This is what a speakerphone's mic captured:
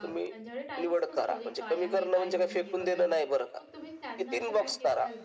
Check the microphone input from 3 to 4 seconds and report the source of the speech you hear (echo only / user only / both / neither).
both